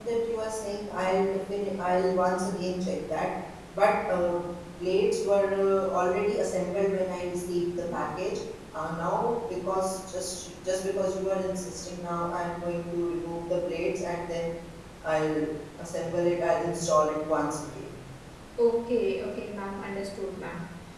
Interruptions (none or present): none